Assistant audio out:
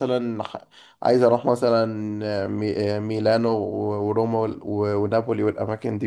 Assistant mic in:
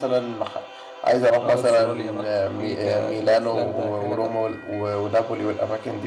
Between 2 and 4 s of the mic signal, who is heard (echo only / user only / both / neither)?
both